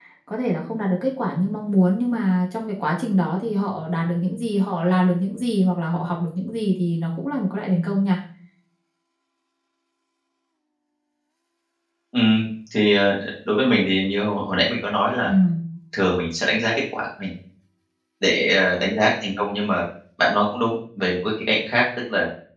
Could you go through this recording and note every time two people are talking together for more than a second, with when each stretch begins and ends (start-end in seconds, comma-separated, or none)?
none